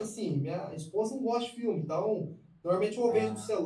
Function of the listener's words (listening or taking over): listening